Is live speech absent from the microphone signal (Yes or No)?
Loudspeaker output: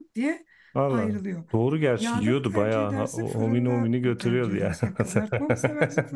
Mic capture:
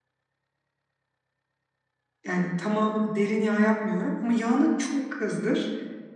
No